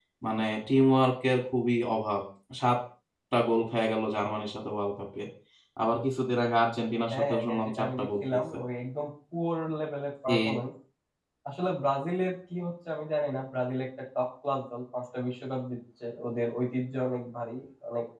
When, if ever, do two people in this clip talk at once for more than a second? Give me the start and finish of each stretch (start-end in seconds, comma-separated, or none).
7.1-8.4